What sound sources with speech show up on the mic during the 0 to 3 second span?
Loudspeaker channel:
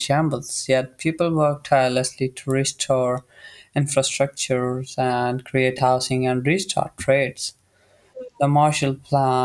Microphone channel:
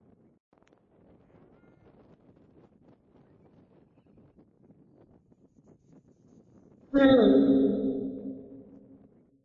neither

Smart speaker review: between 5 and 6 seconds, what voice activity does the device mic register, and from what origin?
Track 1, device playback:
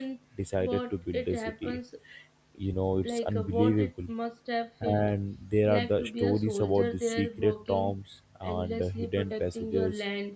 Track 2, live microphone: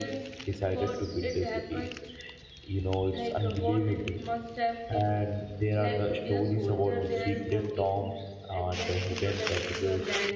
echo only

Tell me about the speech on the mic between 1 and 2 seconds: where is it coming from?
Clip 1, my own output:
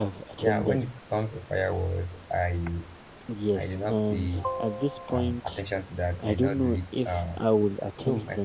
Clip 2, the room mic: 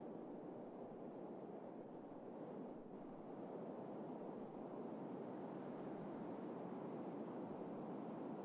neither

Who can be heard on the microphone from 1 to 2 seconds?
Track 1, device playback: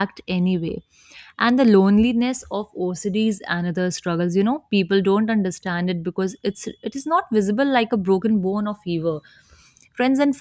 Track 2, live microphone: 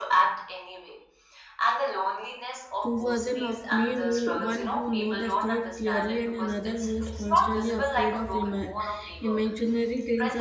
echo only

